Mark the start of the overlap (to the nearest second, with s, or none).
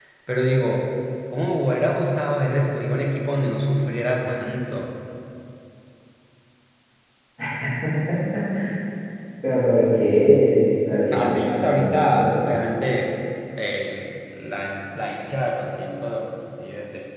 11 s